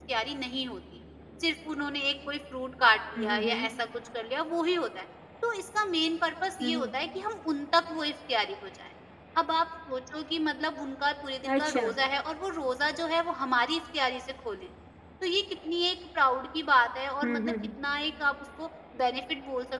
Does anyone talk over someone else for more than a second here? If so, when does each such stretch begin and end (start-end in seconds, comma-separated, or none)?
none